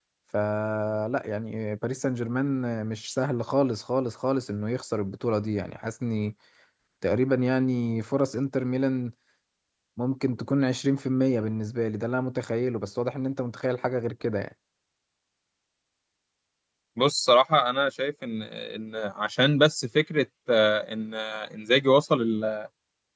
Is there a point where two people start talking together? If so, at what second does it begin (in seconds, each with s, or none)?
none